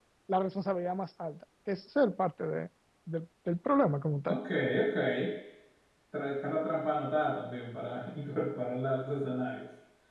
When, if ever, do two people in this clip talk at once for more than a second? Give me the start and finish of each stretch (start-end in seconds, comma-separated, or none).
none